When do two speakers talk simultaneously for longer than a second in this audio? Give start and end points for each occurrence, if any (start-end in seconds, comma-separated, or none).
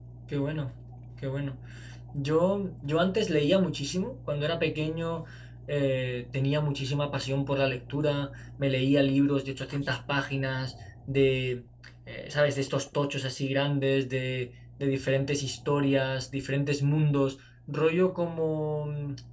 none